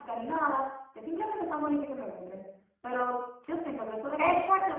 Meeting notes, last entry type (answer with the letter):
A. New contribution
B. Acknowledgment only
A